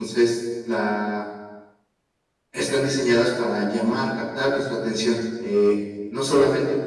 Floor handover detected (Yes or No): No